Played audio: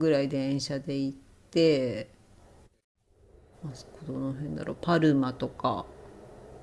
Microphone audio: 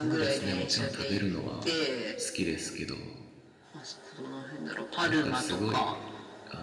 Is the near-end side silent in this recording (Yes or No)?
No